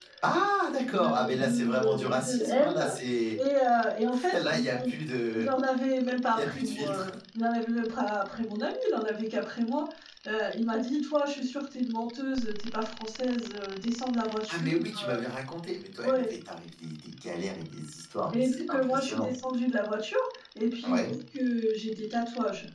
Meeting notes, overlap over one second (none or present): present